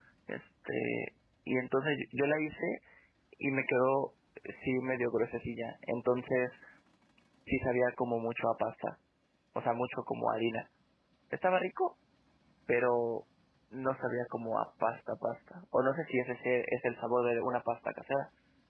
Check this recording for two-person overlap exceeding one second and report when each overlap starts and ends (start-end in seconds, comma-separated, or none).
none